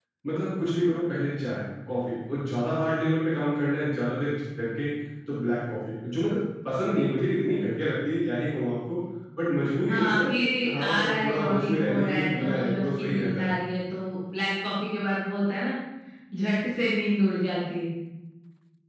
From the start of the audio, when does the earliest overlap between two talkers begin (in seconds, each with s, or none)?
9.9 s